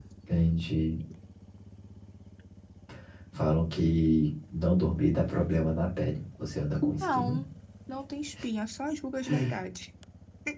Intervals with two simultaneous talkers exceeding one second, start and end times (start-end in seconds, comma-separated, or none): none